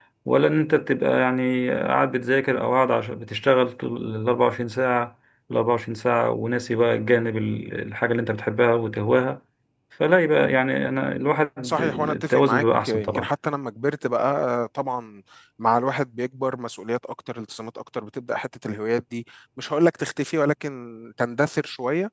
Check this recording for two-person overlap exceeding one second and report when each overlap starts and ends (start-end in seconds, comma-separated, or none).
11.6-13.3